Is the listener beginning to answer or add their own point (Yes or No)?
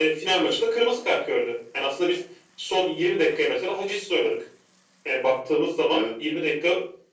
No